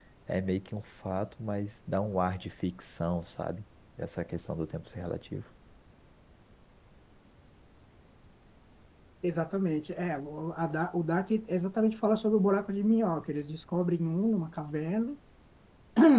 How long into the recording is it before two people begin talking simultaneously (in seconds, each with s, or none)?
none